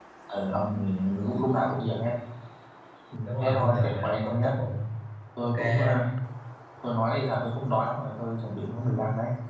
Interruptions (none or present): present